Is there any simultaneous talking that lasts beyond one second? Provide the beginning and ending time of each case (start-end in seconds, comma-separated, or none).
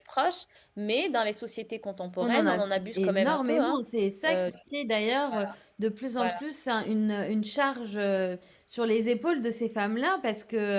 2.2-3.8